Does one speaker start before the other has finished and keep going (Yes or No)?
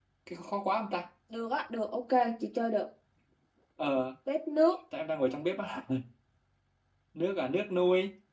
No